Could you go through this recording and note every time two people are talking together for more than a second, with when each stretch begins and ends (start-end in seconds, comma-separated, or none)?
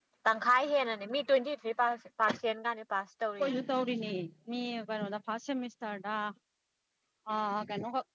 none